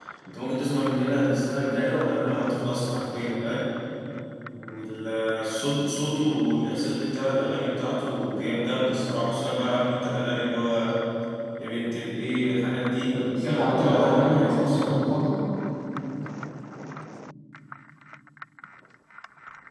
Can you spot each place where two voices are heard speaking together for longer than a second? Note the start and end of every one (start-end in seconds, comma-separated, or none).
13.1-15.0